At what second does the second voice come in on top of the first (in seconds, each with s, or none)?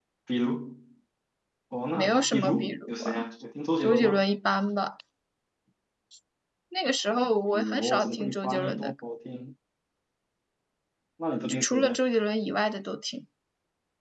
1.9 s